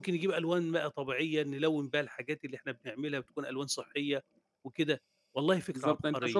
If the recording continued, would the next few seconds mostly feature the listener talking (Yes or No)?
Yes